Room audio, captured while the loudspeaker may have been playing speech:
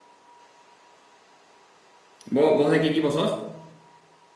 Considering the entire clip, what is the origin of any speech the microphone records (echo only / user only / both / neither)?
user only